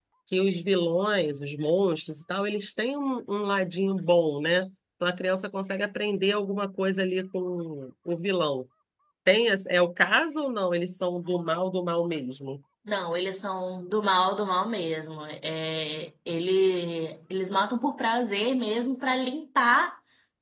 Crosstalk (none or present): none